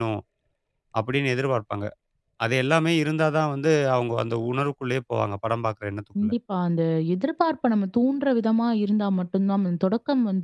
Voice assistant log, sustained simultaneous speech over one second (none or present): none